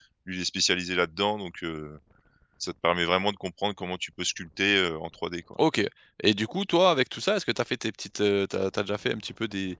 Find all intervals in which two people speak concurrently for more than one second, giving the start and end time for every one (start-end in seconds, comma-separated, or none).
none